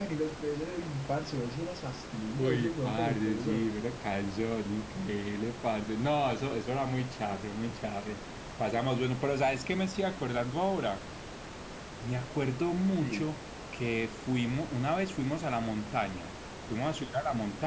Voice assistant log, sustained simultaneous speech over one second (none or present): present